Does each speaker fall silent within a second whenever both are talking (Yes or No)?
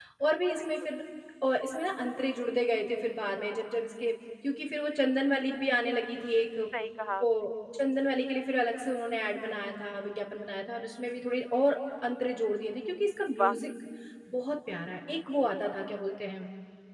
Yes